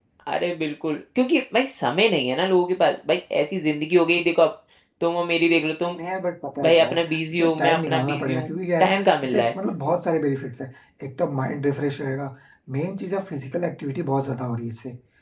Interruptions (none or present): present